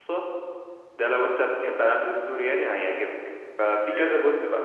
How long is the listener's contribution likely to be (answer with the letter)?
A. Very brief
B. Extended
A